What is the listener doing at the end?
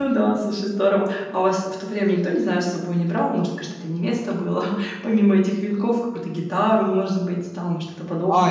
taking over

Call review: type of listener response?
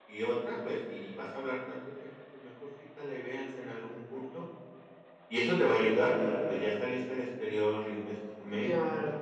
taking over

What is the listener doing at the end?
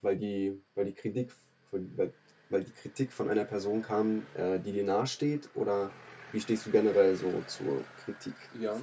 taking over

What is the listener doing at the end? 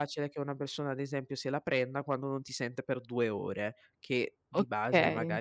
listening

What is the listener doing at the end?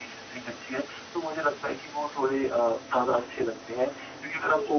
listening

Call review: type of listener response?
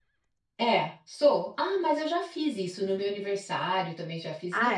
listening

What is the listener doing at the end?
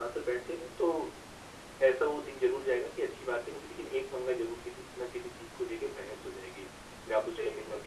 listening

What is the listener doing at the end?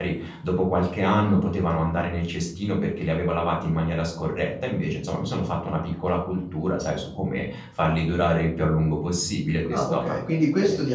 taking over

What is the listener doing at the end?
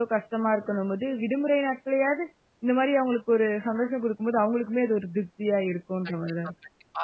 taking over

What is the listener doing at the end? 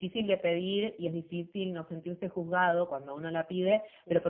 listening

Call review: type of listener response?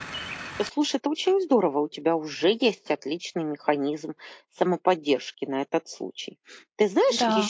listening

